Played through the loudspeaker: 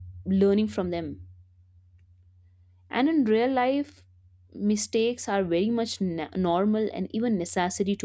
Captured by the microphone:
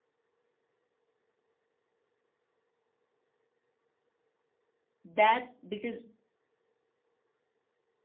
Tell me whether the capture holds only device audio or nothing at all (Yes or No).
No